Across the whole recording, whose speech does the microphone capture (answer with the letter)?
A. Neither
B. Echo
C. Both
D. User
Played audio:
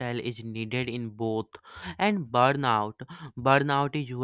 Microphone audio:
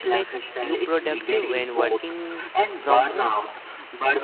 C